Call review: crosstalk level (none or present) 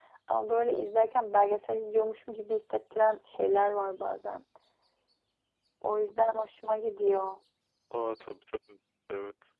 none